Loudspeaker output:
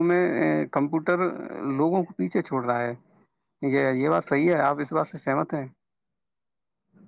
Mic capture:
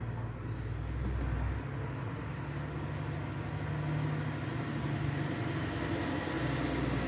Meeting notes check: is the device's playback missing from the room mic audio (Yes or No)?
Yes